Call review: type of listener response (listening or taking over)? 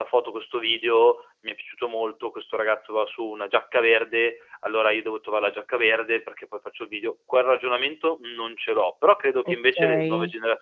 listening